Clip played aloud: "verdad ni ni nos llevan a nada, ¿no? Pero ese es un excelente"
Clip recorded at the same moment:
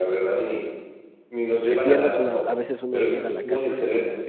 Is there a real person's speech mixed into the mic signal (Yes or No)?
Yes